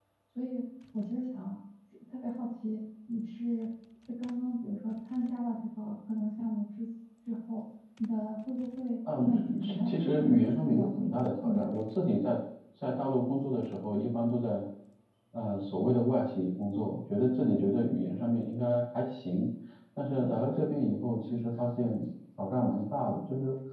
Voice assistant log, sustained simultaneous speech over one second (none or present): present